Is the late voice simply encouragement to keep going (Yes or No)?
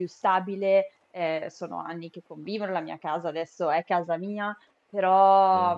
No